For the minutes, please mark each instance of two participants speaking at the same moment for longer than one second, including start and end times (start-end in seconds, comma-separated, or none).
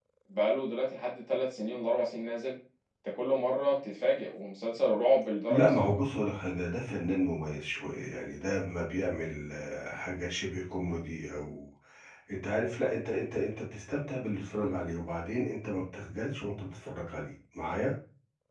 none